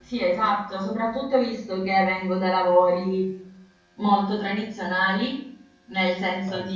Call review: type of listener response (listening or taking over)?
listening